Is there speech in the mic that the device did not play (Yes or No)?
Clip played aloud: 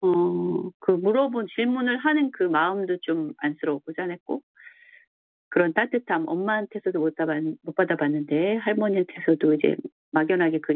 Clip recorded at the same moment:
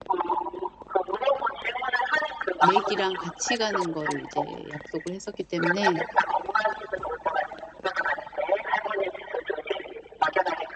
Yes